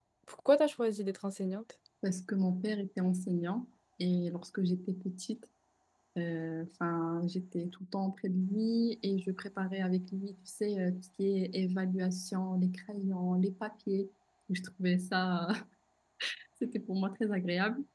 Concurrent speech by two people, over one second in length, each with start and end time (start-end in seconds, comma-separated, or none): none